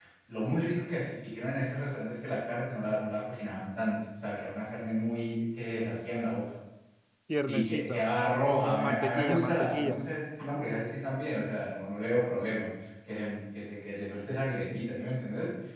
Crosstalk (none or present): present